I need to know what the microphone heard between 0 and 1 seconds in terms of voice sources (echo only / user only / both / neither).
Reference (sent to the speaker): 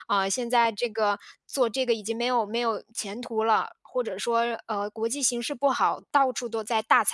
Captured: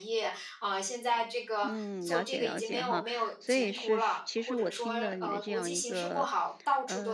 echo only